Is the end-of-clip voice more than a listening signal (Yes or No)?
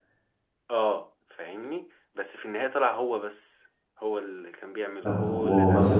Yes